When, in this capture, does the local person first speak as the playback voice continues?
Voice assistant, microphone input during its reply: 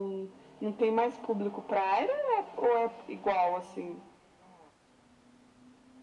none

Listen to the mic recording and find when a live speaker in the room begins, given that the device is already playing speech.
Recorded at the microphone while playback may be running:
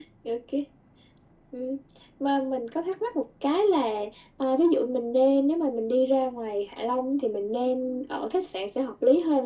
none

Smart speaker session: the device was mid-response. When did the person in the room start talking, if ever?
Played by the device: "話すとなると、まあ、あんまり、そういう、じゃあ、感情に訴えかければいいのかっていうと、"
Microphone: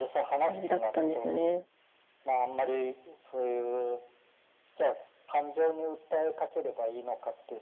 0 s

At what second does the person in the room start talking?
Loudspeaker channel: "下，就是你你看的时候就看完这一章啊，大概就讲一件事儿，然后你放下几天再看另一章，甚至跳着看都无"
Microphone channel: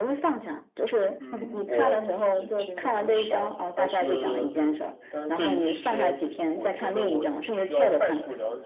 1 s

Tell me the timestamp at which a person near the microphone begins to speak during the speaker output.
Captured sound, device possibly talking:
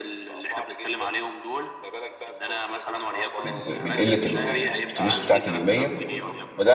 3 s

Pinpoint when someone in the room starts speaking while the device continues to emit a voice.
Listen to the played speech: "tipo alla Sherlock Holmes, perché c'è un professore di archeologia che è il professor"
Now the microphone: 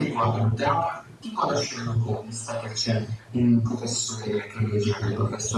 none

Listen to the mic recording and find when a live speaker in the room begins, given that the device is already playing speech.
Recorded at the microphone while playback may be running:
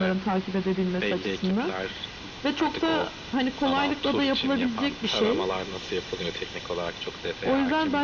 none

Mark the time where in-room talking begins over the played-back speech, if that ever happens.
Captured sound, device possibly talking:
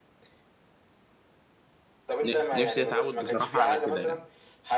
2 s

